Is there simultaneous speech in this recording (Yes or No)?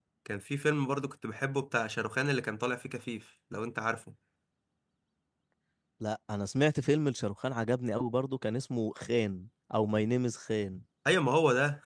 No